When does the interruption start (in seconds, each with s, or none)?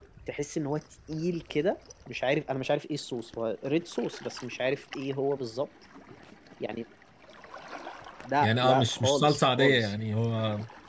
8.4 s